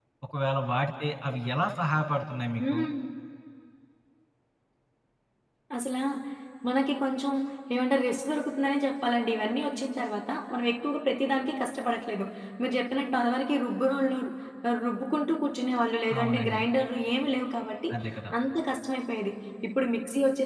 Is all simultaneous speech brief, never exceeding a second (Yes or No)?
Yes